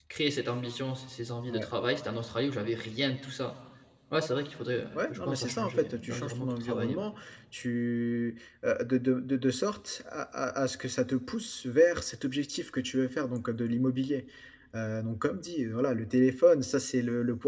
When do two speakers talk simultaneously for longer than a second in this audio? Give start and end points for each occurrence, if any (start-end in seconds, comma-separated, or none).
5.0-7.0